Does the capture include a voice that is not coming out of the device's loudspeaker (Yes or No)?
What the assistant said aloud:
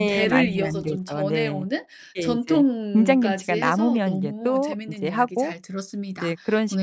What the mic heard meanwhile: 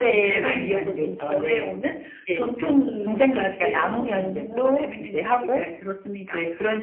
No